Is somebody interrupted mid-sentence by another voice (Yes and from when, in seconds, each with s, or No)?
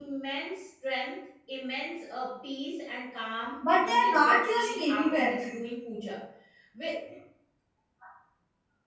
Yes, from 3.6 s